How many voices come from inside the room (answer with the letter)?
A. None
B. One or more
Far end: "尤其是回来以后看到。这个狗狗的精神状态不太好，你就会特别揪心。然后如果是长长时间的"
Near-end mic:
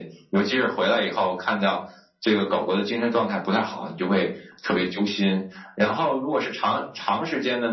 A